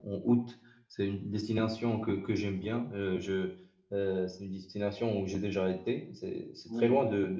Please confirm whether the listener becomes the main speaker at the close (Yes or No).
No